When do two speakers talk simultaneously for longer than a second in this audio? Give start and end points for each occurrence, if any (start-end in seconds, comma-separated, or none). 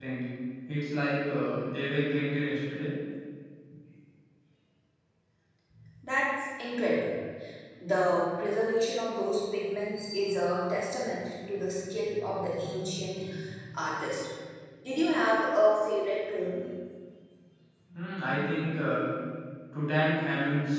none